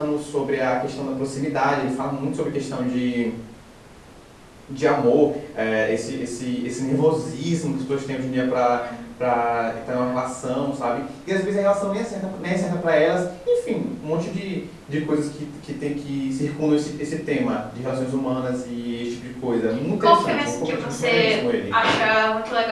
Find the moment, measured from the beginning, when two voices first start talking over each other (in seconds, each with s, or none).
20.0 s